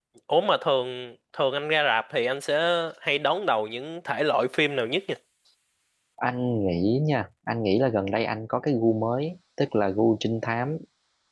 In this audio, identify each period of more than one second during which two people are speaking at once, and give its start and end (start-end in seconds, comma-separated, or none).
none